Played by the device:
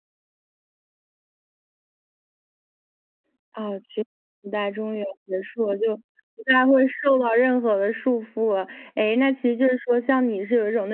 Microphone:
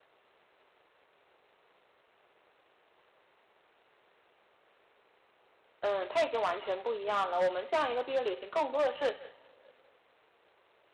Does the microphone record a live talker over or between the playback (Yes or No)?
Yes